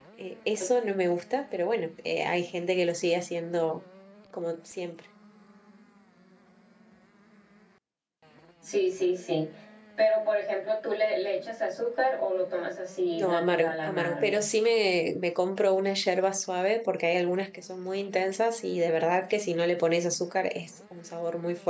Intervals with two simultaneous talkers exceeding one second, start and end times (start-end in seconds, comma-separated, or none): 13.2-14.4